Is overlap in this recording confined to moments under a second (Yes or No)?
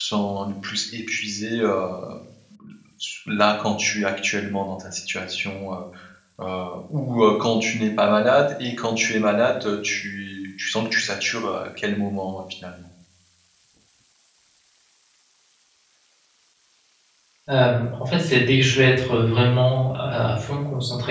Yes